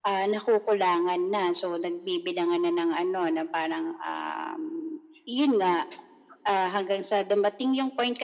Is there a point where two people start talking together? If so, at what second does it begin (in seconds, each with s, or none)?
none